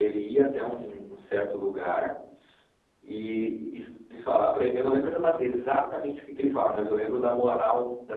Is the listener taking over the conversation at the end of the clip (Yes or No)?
No